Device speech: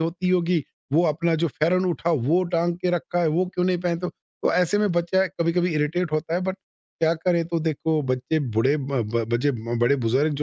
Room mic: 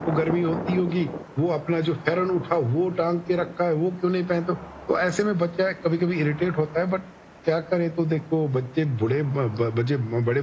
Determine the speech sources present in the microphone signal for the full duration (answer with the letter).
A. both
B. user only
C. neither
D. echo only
D